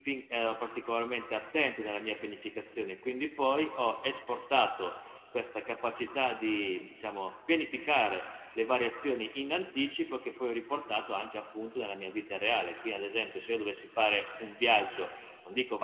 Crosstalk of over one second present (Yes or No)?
No